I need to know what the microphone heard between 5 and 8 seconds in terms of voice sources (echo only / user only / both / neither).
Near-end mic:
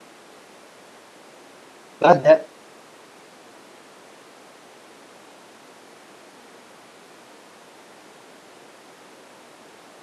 neither